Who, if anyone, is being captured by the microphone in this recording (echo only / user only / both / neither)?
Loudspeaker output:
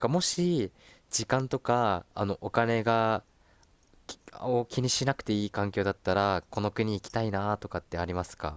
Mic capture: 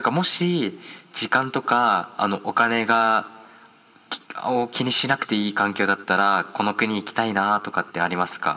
echo only